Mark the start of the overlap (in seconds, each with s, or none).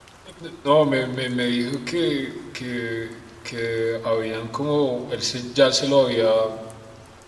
none